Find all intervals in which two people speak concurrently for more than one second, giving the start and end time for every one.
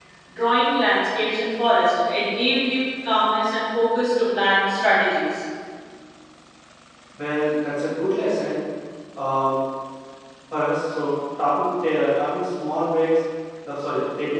none

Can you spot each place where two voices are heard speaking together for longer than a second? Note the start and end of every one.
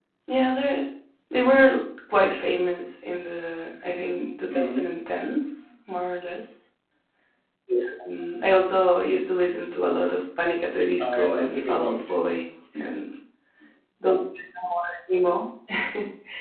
11.0-12.2

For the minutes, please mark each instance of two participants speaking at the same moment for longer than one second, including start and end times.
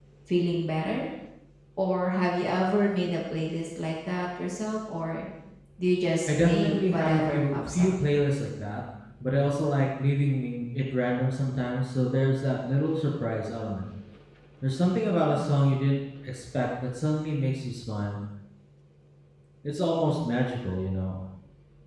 6.3-7.9

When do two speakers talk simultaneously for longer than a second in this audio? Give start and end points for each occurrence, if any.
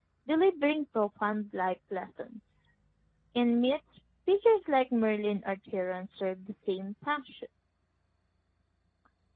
none

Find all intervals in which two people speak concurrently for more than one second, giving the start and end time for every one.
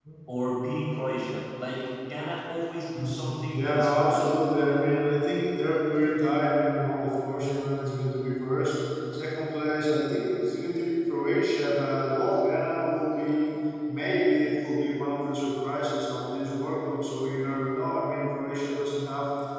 3.0-4.3

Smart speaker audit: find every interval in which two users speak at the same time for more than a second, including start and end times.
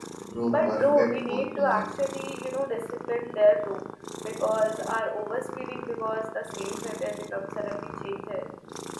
0.5-1.9

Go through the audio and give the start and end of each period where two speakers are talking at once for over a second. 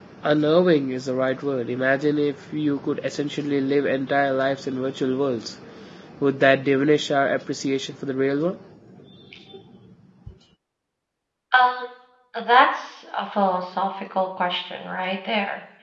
none

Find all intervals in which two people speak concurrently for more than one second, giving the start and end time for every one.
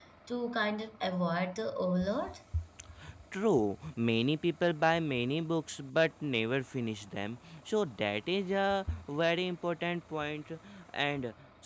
none

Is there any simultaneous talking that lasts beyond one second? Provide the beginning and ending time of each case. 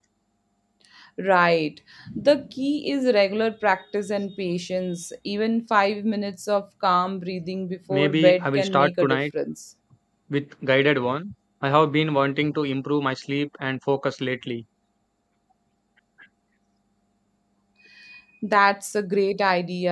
7.9-9.2

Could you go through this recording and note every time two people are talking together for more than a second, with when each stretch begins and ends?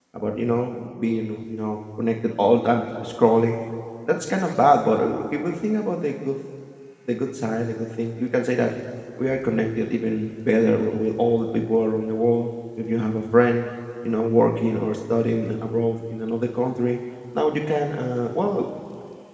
none

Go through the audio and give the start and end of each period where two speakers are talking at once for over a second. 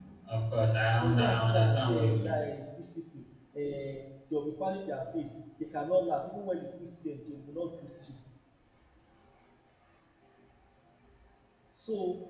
1.0-2.4

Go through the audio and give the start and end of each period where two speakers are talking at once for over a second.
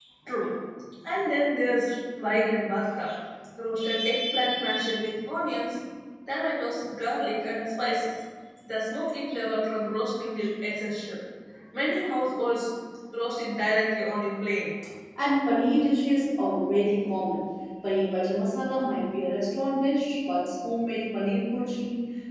none

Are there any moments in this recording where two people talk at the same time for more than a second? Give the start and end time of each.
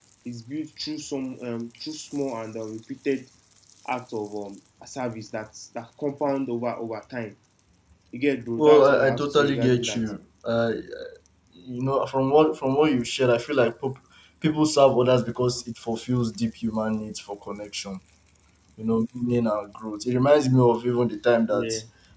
8.6-10.0

